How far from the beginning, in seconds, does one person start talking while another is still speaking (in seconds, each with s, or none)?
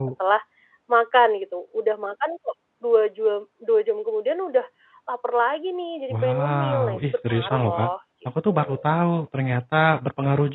6.1 s